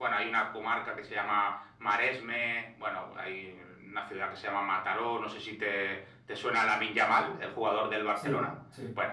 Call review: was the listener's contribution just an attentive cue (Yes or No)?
Yes